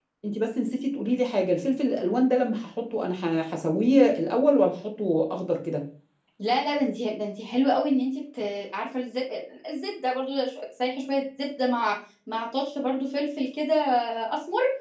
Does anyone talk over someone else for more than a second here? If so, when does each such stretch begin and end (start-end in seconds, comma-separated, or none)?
none